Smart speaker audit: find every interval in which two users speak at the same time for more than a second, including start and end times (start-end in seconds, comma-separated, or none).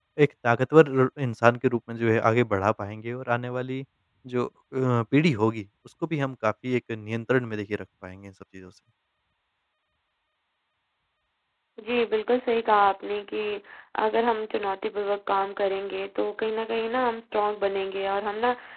none